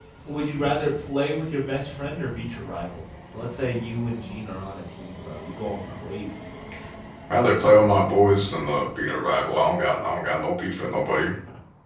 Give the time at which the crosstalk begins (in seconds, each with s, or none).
none